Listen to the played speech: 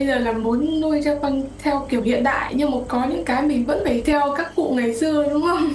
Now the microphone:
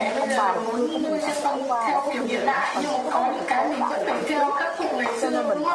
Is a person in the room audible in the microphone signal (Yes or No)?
Yes